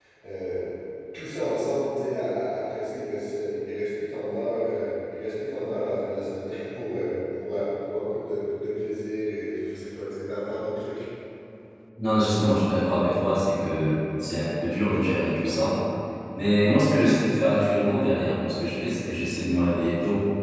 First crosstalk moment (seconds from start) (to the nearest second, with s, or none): none